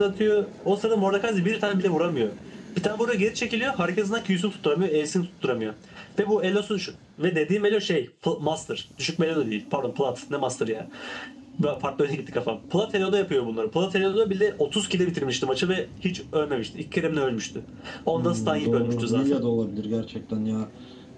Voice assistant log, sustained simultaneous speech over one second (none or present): present